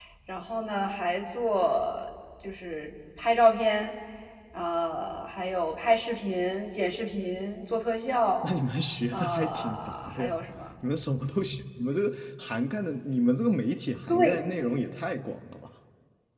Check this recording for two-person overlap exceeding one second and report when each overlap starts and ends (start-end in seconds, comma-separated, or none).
9.1-10.4